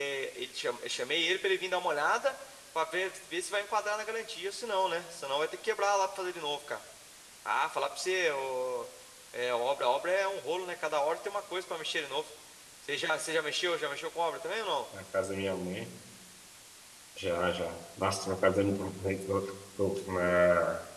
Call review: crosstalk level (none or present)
none